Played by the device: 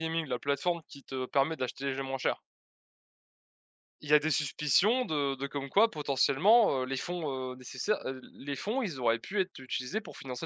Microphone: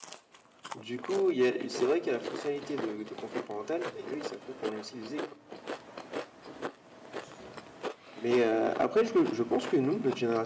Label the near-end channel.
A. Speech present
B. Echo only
A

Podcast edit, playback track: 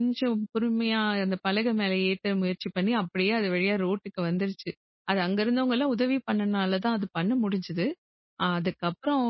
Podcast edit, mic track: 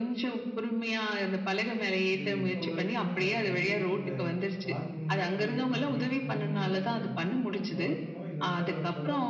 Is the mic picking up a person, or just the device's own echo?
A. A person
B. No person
A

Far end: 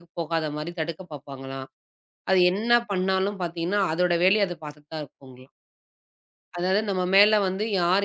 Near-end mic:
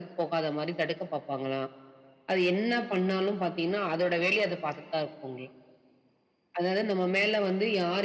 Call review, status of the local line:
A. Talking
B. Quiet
B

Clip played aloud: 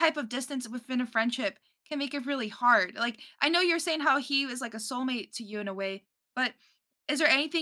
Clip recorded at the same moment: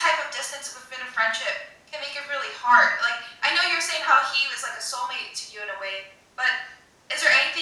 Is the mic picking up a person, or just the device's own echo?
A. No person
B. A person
A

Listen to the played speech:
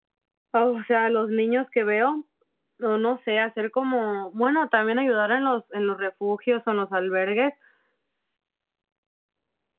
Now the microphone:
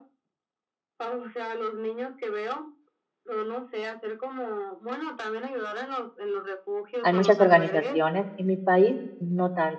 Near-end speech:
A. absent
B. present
B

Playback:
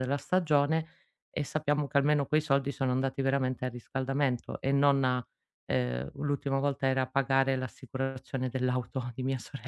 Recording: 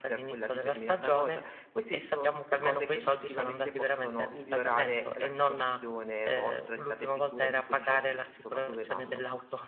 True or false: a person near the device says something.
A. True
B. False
A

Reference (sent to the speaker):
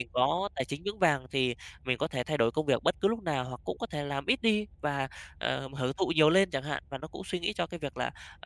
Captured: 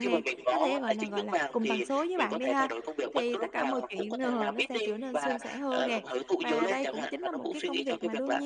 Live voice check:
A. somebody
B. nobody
A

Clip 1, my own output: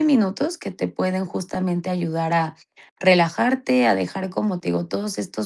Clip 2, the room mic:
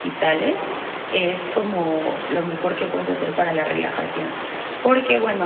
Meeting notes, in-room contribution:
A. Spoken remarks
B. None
A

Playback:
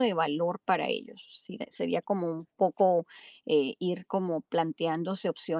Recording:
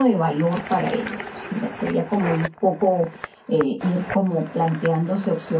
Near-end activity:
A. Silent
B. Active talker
A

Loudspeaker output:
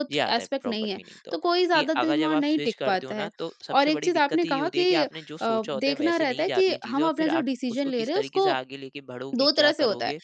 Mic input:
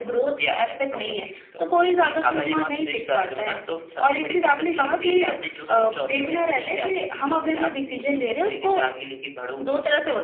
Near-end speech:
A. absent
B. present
A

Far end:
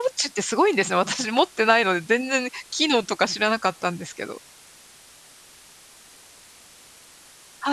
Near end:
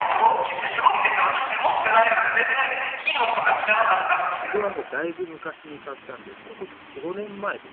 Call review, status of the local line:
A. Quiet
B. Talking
B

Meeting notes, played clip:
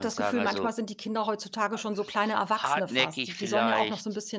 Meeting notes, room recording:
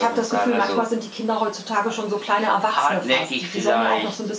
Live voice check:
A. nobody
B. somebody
A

